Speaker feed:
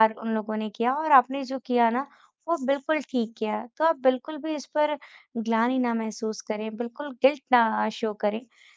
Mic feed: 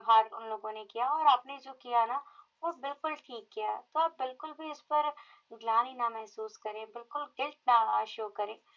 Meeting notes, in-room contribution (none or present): none